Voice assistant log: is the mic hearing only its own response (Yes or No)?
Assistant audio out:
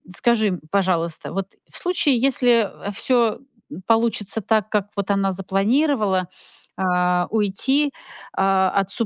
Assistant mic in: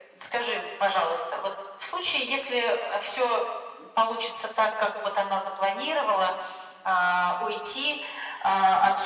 Yes